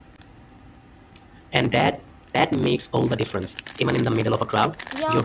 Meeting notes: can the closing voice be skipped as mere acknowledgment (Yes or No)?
No